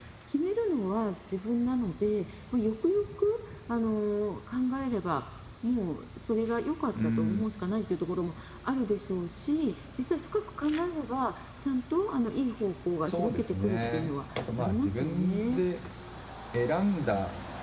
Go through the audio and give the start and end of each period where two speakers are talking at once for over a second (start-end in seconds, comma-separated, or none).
13.1-15.6